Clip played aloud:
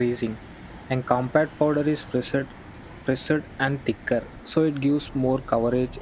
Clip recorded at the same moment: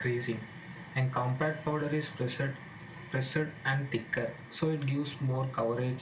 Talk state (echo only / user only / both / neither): echo only